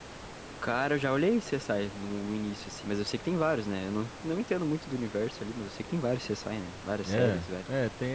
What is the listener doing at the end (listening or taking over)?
taking over